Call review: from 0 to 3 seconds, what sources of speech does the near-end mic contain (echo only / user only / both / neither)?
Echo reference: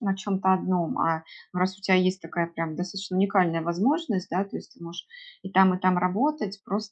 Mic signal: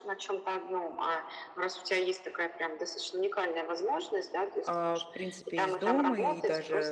echo only